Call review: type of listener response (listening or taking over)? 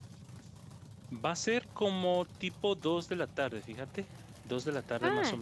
taking over